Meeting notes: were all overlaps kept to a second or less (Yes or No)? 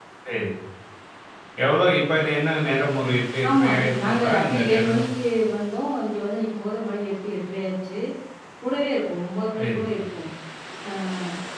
No